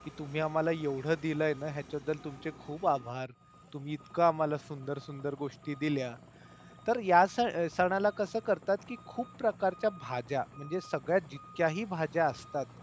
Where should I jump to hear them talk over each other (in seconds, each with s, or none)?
none